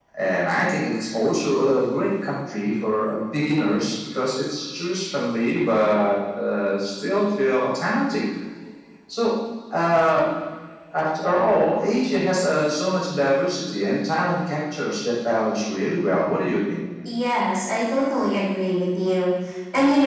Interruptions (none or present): none